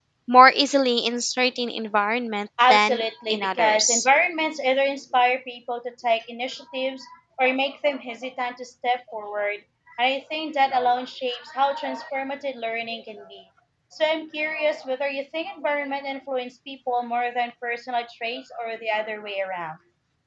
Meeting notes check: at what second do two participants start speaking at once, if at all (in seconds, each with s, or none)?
2.6 s